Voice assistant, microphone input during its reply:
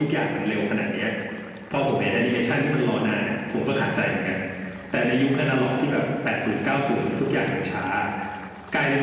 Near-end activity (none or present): none